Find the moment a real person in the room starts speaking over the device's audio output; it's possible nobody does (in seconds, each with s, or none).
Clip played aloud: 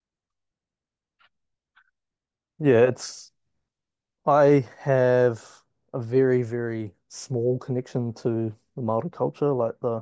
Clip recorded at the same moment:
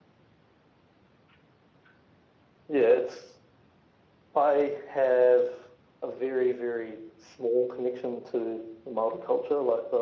none